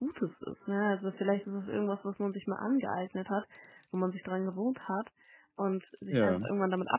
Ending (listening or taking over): listening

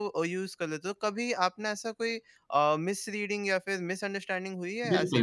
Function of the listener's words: taking over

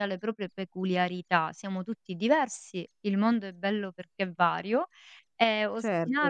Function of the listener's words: listening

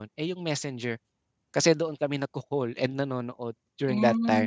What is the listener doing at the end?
taking over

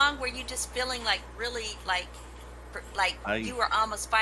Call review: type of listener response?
listening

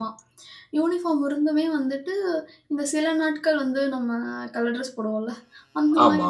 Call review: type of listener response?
listening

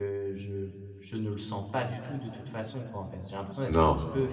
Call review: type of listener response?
listening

